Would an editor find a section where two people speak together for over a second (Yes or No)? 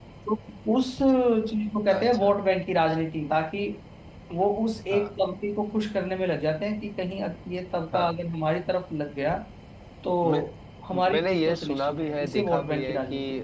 Yes